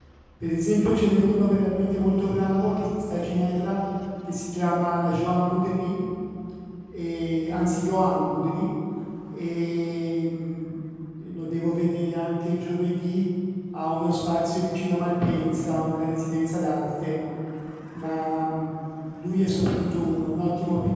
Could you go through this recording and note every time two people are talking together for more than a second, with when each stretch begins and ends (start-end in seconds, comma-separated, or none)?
none